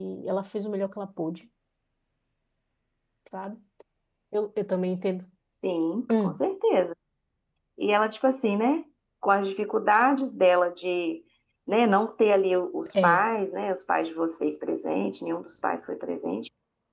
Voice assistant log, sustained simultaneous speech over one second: none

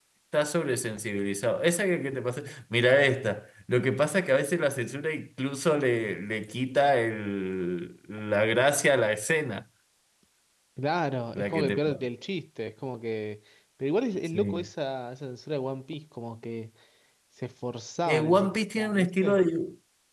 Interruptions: present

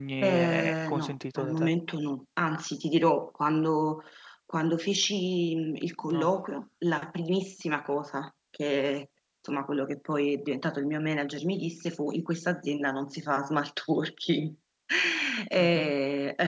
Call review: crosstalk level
present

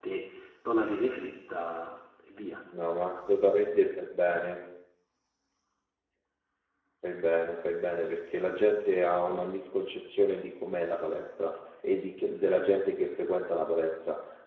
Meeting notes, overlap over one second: none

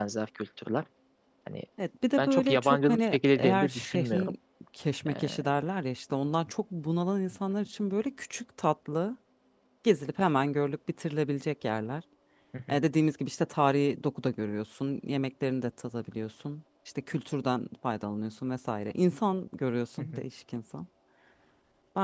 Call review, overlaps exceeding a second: present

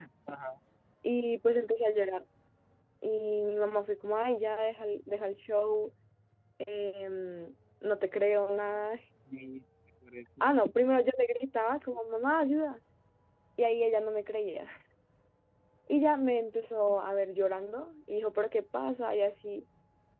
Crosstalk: none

